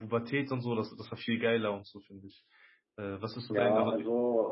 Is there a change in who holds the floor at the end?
Yes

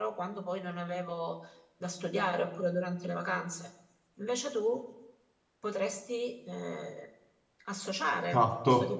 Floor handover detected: Yes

